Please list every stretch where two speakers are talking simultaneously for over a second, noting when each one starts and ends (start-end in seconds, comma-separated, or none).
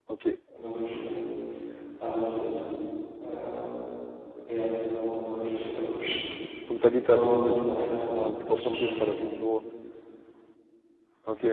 6.8-9.1